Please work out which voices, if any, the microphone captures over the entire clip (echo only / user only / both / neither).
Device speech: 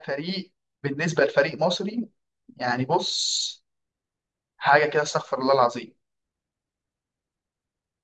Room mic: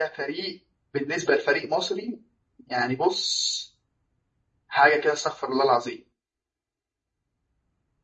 echo only